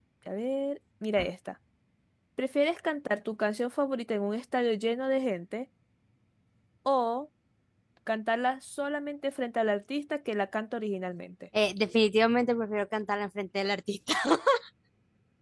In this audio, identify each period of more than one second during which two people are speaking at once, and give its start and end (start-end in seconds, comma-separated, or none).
none